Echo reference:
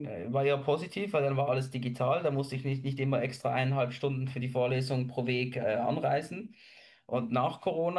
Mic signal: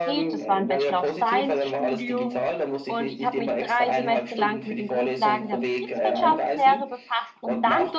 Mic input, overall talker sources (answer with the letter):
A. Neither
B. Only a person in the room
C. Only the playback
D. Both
D